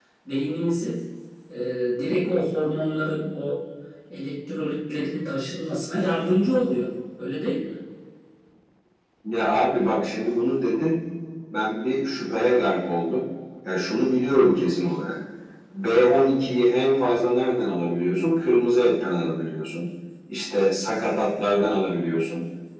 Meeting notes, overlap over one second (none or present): none